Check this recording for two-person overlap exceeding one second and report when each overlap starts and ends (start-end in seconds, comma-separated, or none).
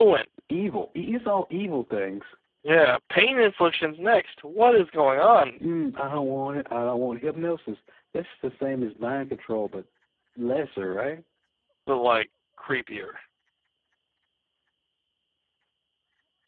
none